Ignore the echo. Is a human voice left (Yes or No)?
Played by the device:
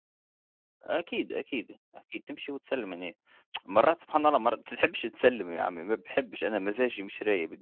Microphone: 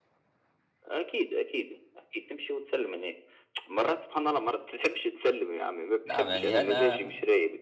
Yes